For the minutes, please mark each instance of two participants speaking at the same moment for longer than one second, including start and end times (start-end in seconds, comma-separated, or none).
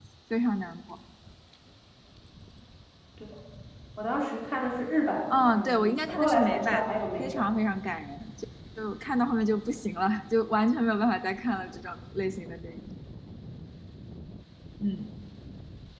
5.3-7.5